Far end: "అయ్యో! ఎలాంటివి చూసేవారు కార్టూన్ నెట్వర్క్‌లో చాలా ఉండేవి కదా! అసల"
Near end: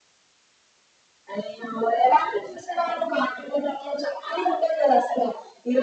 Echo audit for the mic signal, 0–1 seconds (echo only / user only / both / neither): neither